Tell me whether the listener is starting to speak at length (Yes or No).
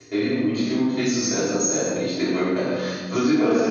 No